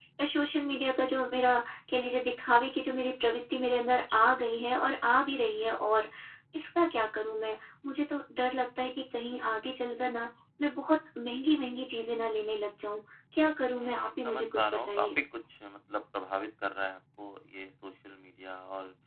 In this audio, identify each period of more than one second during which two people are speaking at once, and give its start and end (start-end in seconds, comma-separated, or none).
13.8-15.1